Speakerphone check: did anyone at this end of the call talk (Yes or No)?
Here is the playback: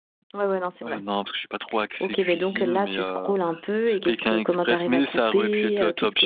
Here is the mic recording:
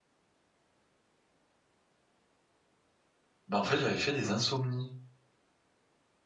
Yes